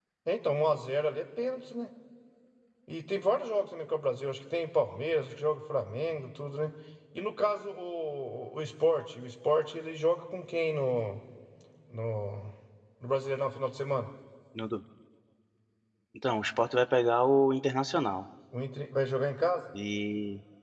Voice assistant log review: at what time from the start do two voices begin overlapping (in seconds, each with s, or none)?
none